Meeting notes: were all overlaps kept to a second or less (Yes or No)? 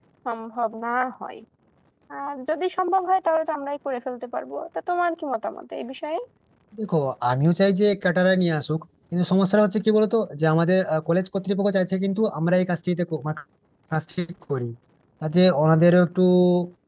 Yes